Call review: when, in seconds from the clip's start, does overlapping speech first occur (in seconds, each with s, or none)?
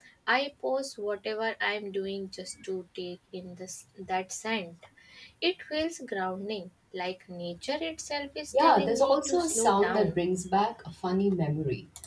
8.5 s